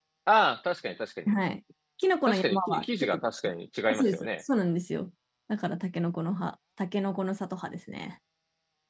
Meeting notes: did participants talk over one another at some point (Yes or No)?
Yes